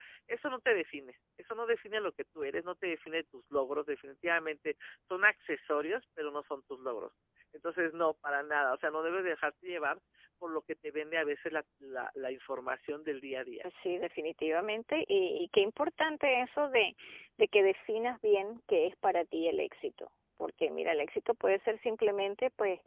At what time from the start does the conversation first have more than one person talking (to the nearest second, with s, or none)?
none